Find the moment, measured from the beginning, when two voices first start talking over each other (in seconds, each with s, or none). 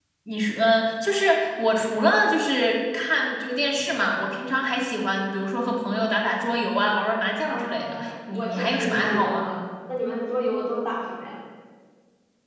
7.5 s